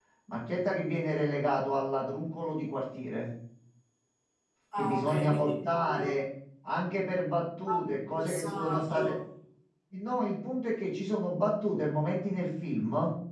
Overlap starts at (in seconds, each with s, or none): 4.8 s